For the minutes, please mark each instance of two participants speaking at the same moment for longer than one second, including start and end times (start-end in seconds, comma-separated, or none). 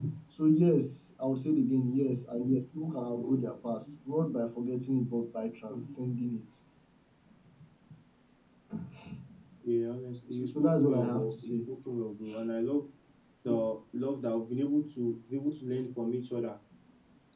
10.3-11.6